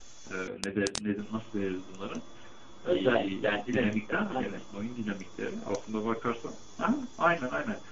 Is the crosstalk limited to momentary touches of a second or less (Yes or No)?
No